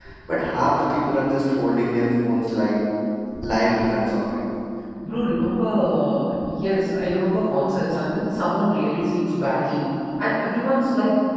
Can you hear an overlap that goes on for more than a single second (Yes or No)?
No